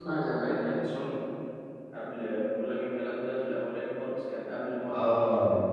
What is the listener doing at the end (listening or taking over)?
taking over